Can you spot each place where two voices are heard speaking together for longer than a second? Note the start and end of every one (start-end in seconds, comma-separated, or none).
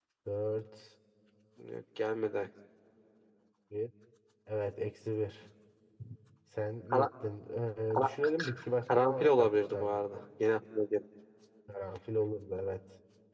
9.0-10.2